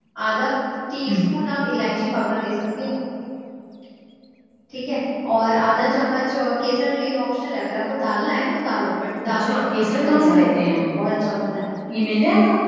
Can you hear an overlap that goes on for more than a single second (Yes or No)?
Yes